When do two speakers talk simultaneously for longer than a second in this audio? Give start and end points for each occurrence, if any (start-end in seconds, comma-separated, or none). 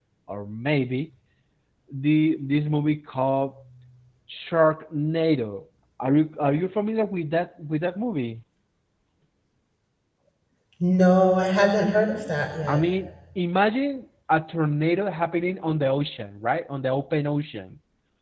none